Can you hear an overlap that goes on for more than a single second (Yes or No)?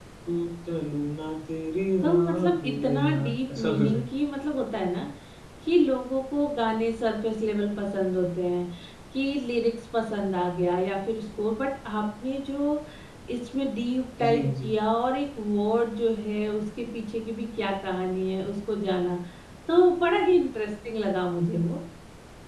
Yes